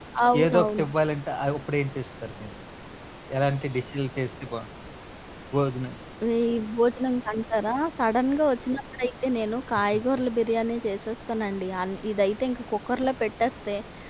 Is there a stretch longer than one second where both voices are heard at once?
No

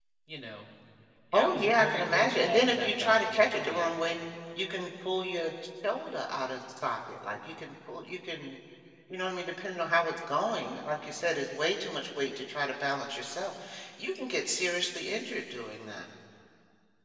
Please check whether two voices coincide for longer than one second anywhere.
Yes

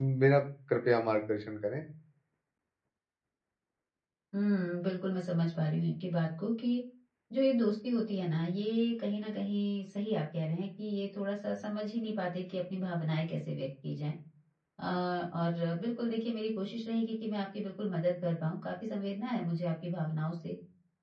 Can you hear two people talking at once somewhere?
No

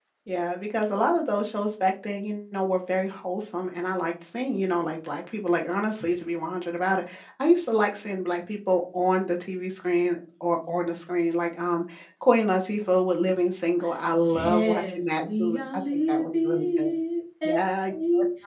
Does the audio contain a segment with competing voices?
Yes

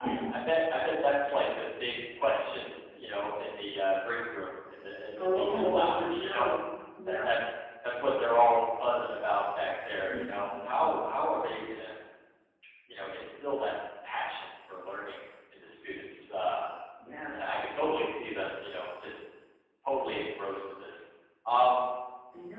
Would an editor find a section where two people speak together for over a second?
Yes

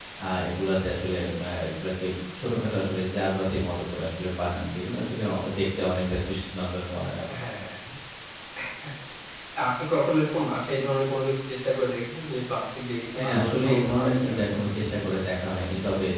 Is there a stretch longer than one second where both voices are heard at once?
Yes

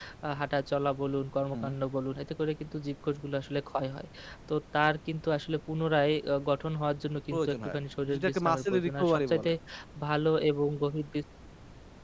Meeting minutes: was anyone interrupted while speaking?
Yes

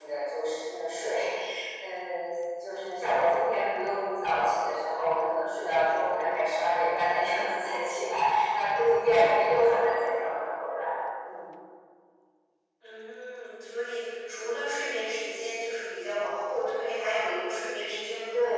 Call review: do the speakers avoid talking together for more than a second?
Yes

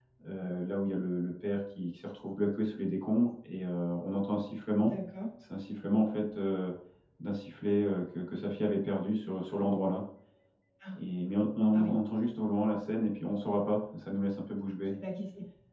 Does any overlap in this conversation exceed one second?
No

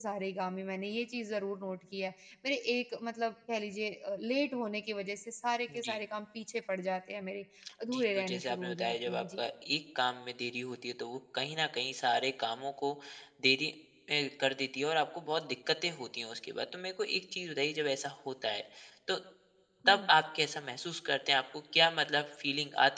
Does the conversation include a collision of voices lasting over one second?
Yes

